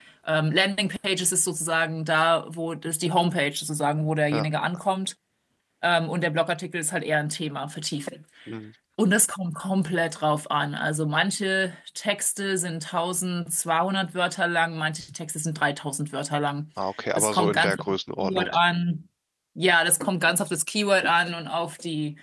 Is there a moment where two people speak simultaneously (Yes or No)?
Yes